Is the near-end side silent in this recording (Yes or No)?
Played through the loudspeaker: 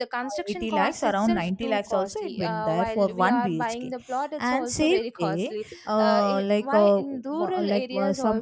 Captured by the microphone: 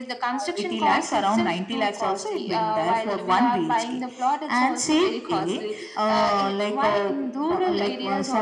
Yes